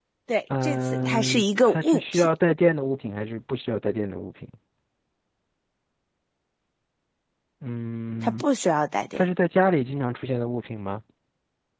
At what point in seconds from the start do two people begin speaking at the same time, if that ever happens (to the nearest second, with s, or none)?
1 s